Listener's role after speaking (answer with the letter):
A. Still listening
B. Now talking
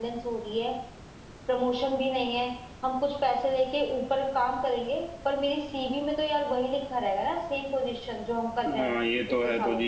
B